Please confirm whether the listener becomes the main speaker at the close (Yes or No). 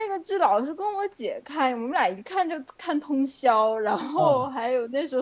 No